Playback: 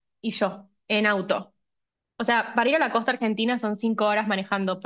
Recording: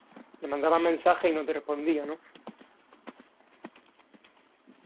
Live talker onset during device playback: 0.4 s

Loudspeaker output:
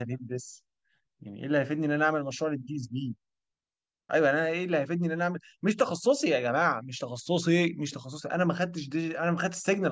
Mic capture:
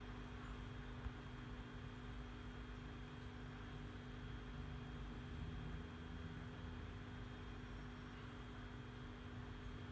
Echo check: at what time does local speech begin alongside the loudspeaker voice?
none

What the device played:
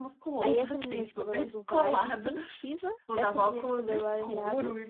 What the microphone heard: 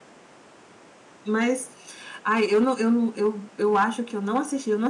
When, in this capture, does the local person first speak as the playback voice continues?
1.3 s

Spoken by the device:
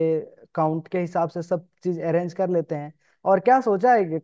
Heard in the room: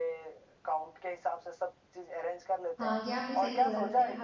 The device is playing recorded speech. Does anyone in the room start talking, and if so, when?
2.8 s

